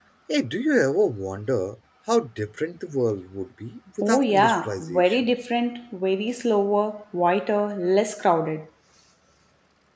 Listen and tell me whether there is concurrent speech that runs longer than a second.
Yes, from 4.0 s

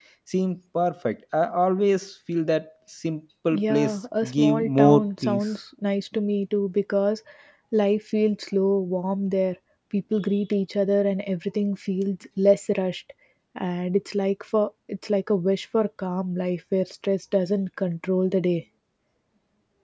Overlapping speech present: Yes, from 3.5 s

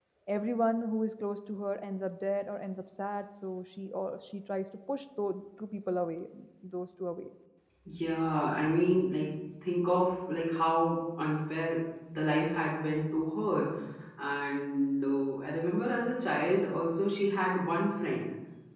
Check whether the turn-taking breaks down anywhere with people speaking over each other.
No

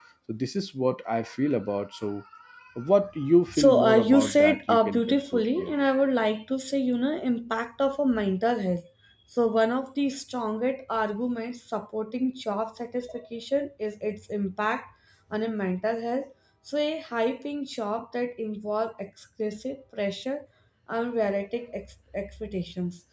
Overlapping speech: Yes, from 3.5 s

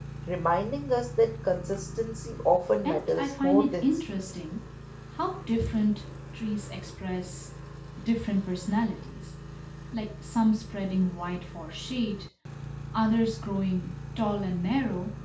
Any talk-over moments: Yes, from 2.9 s

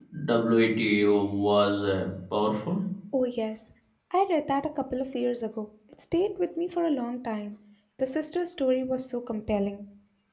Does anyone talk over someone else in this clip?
No

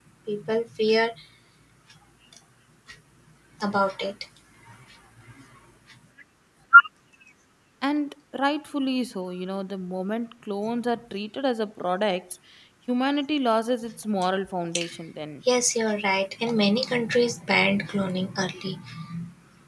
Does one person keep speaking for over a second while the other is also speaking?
No

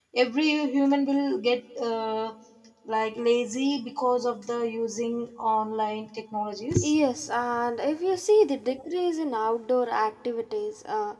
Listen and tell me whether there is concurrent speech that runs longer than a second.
No

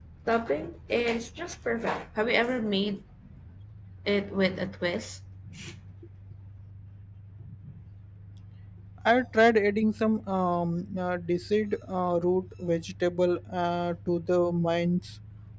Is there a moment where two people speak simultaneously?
No

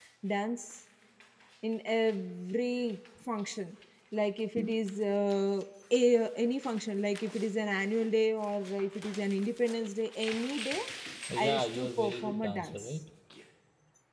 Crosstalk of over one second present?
Yes, from 11.4 s

